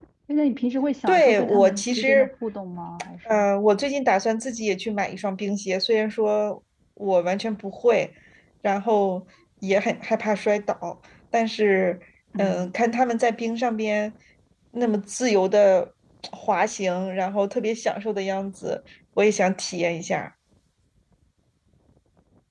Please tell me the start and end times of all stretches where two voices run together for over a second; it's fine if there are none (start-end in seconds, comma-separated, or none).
1.1-2.3